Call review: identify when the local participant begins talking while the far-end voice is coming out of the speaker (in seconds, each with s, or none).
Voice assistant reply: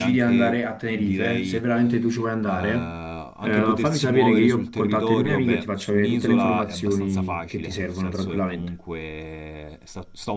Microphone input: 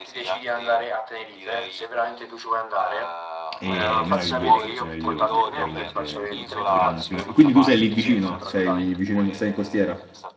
3.6 s